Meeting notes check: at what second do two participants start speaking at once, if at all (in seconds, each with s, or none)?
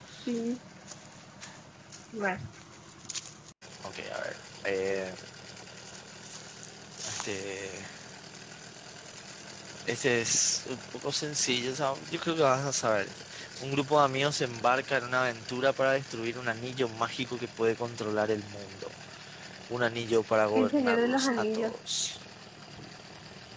20.6 s